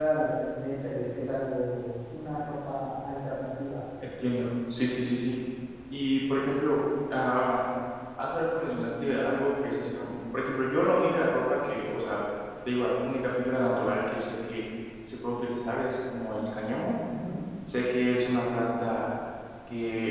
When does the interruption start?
none

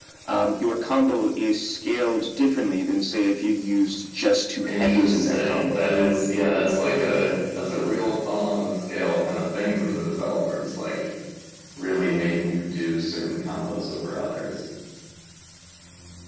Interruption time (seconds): 5 s

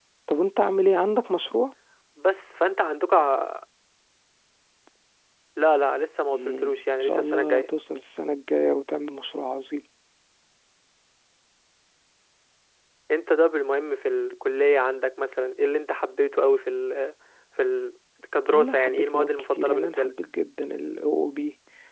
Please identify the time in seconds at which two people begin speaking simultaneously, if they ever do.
6 s

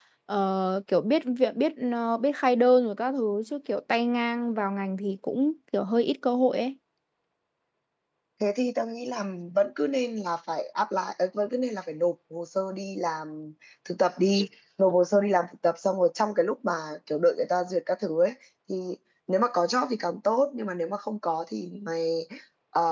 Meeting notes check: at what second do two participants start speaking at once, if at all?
none

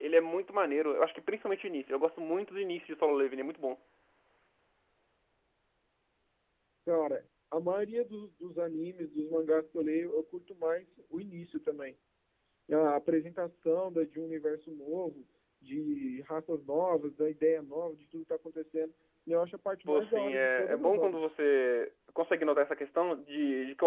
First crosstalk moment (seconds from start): 20 s

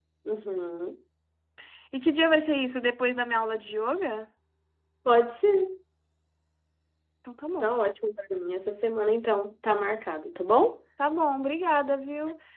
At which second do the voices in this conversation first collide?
none

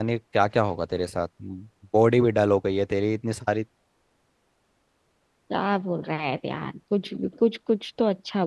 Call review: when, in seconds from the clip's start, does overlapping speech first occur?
none

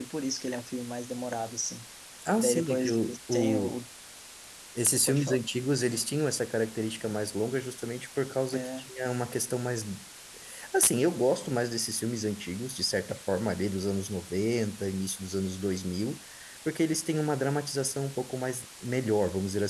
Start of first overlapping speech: 2 s

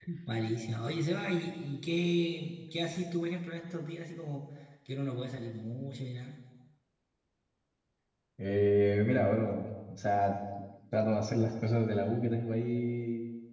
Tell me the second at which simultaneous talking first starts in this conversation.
none

